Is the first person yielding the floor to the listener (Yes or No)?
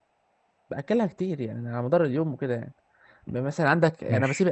No